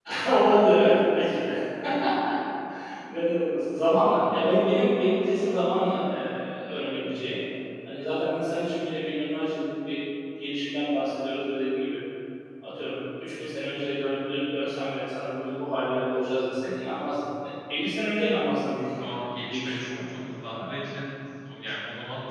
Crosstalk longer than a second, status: present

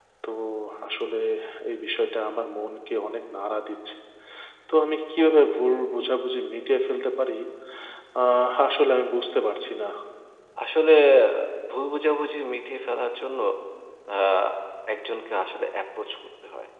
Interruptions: none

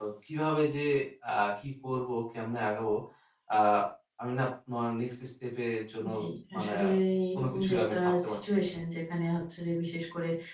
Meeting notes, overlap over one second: present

